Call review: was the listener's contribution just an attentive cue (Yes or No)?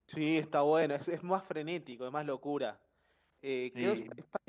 Yes